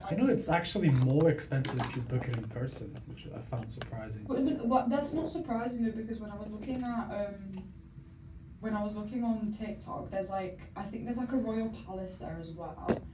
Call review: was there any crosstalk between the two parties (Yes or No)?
No